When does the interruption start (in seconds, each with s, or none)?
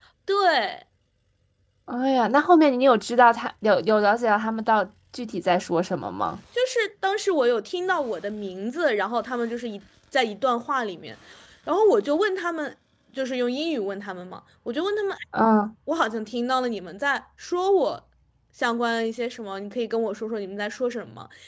none